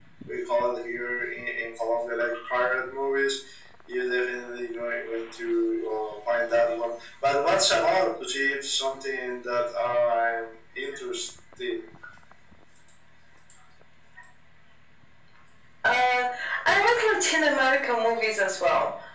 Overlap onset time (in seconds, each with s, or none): none